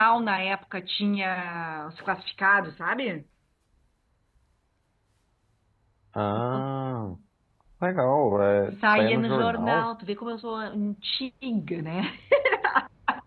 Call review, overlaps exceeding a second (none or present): present